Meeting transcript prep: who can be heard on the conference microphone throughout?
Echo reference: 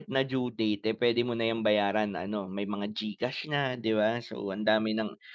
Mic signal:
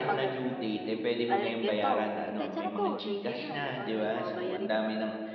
both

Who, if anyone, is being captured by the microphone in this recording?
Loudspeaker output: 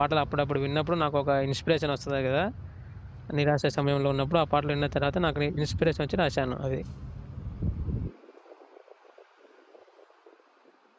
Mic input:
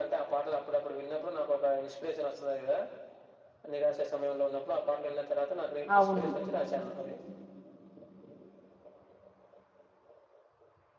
both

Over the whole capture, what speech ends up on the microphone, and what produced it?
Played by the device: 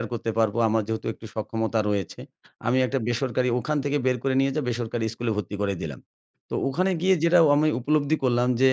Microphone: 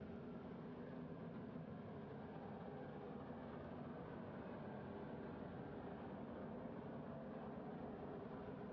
neither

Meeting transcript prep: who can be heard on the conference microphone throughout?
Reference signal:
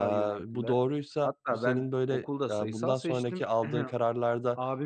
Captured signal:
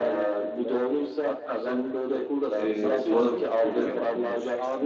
both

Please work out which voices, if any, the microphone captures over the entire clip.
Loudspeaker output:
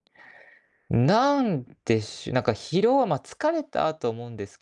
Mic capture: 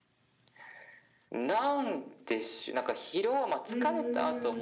both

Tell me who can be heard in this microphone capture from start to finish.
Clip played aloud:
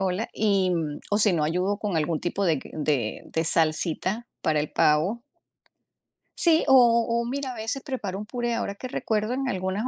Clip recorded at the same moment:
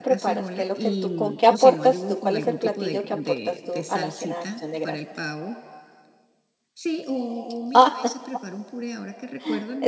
both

